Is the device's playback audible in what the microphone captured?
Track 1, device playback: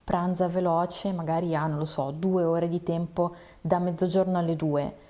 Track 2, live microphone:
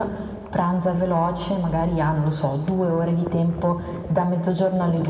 Yes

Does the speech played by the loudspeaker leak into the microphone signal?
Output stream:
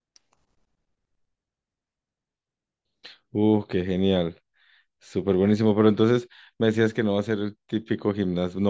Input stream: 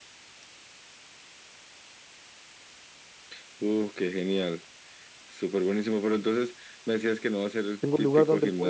Yes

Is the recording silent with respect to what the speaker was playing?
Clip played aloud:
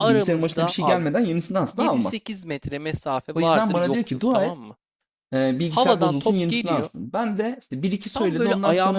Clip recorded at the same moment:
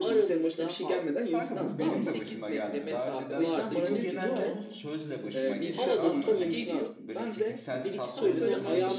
No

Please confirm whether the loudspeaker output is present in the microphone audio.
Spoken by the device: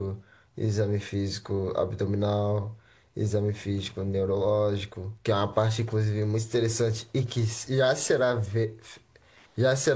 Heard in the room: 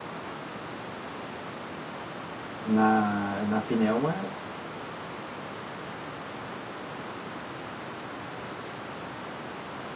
No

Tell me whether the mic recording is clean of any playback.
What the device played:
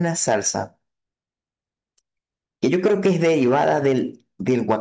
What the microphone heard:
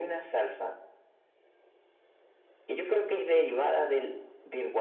No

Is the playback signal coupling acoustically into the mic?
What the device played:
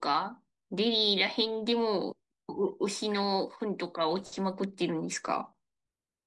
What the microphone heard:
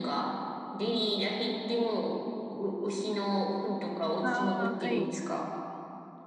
Yes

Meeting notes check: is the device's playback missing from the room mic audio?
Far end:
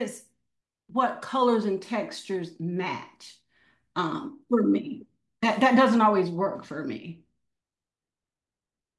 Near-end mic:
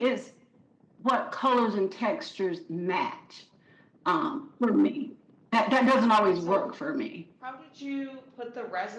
No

